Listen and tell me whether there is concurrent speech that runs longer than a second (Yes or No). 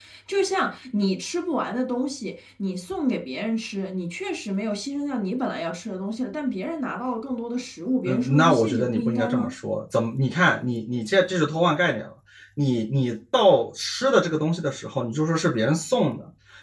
Yes